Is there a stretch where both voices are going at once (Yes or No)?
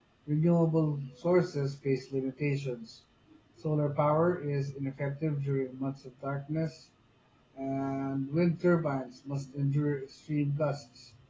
No